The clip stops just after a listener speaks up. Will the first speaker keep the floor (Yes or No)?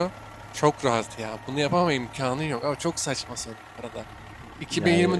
Yes